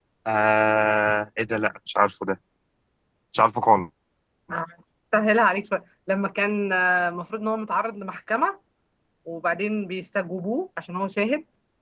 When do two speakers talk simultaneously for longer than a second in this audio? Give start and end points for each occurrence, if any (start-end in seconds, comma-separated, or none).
none